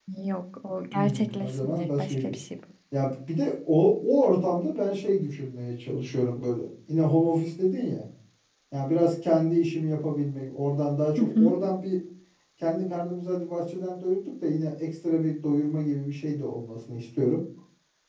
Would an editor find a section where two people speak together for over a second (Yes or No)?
Yes